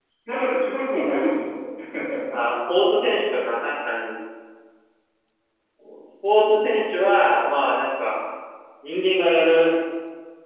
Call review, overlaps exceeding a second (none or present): none